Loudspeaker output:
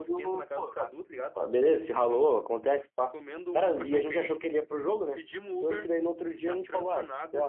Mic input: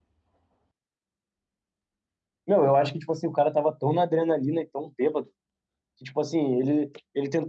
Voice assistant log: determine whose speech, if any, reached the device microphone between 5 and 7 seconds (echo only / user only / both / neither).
user only